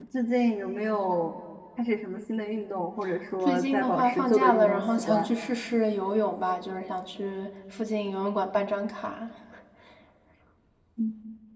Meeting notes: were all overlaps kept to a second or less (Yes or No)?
No